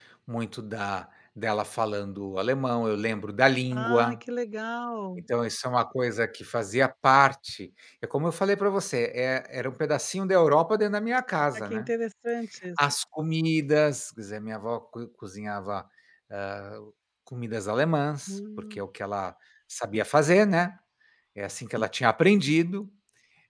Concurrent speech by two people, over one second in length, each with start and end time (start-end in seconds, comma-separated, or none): none